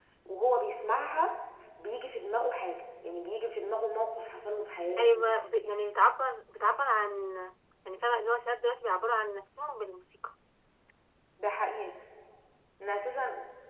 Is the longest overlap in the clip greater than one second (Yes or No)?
No